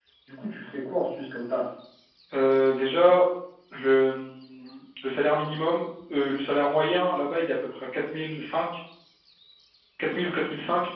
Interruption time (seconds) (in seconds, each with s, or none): none